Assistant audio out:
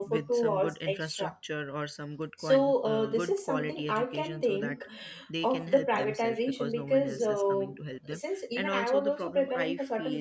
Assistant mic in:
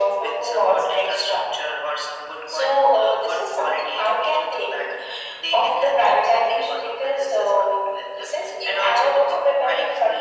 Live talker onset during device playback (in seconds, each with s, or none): none